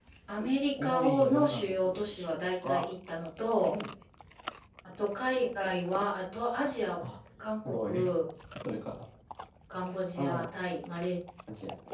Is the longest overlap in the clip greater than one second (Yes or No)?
Yes